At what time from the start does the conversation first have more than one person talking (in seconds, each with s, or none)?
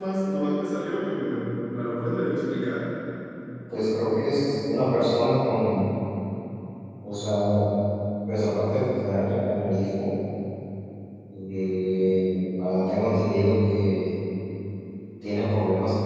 none